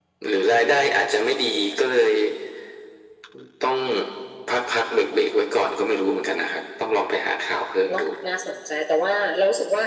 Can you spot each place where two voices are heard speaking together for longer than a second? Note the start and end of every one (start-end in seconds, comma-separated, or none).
none